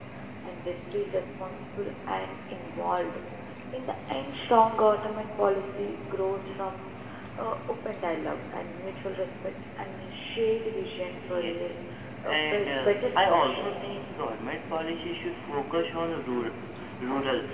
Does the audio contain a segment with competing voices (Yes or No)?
Yes